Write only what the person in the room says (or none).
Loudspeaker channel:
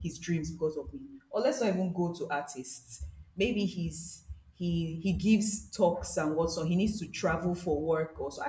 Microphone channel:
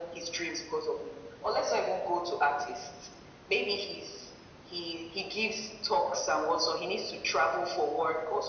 none